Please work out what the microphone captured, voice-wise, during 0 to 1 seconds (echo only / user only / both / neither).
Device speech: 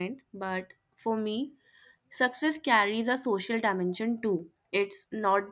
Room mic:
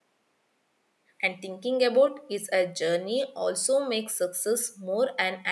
neither